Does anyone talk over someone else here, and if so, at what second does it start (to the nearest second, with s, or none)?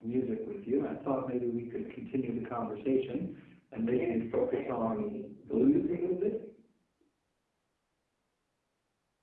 4 s